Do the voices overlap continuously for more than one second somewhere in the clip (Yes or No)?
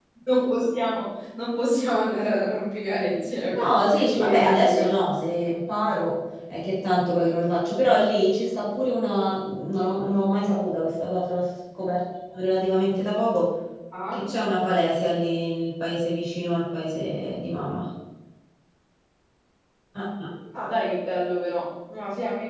Yes